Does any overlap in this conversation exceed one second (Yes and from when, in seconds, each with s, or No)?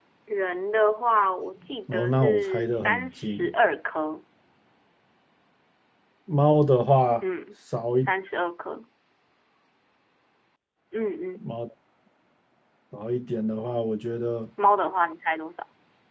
Yes, from 1.9 s